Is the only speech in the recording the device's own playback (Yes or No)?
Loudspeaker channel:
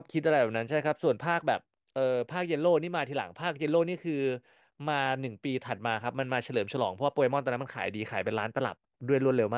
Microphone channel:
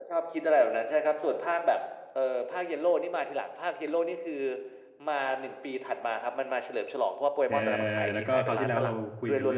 No